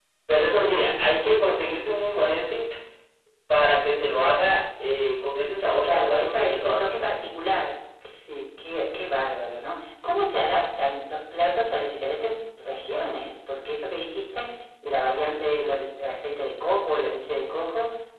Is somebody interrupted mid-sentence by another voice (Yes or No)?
Yes